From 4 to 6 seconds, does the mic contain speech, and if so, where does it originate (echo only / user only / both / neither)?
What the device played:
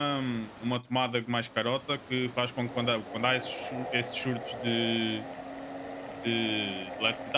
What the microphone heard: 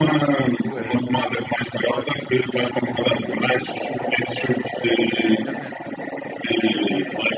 both